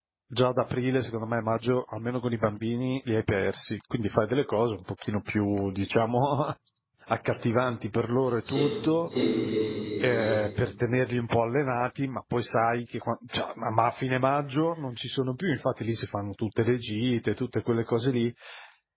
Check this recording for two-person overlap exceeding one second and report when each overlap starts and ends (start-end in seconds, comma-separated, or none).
none